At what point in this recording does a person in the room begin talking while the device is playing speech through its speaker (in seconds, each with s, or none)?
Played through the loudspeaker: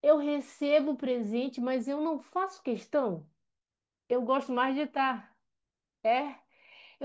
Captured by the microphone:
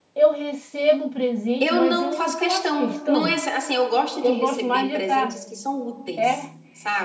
1.6 s